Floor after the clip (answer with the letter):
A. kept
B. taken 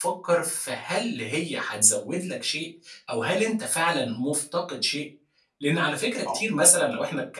A